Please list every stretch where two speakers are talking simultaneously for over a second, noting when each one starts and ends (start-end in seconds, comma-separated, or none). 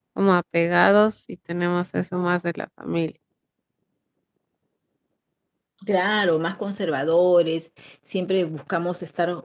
none